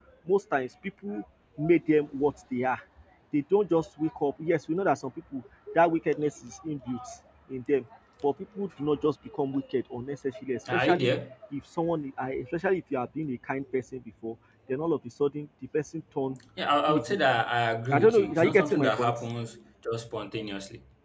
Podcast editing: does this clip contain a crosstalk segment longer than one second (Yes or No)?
Yes